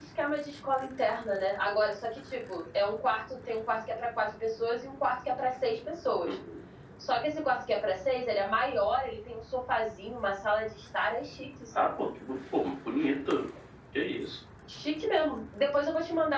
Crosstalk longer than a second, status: none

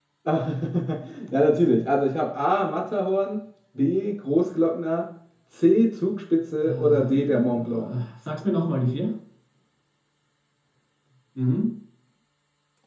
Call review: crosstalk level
present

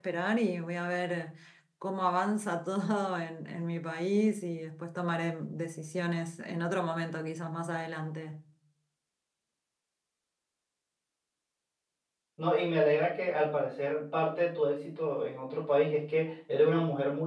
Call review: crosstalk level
none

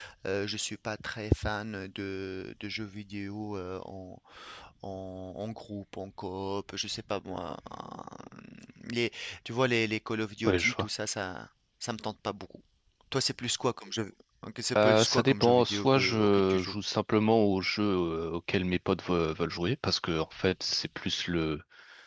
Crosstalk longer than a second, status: present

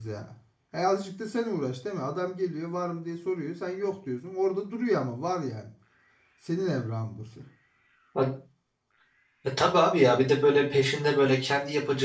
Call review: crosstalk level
none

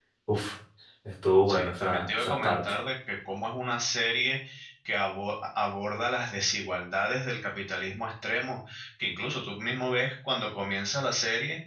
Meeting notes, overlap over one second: present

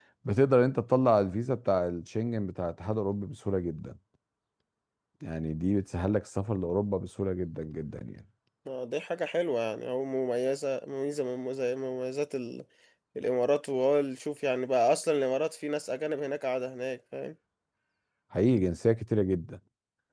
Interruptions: none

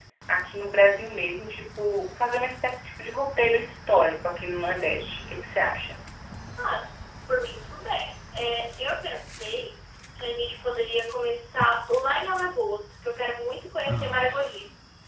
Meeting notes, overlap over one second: none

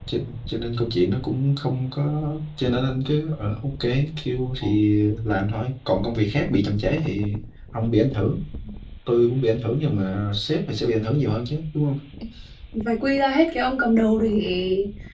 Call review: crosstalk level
none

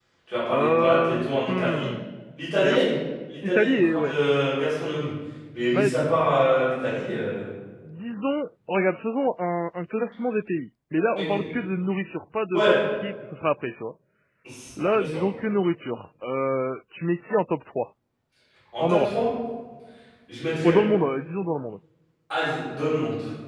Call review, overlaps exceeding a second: present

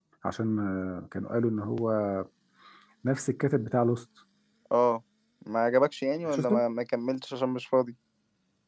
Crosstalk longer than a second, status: none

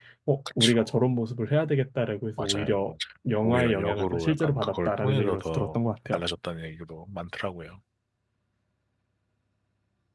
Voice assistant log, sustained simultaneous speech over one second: present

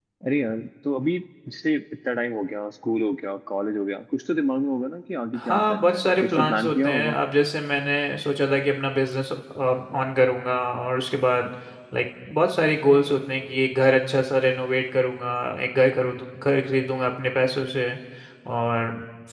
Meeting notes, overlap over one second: present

